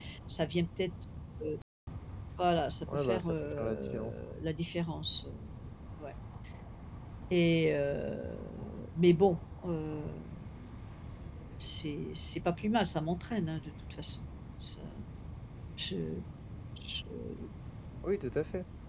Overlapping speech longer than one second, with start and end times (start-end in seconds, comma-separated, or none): 2.9-4.1